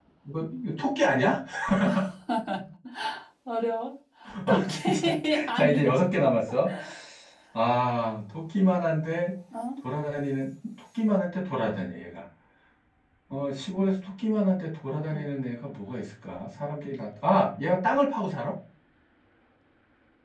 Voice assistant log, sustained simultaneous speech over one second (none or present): present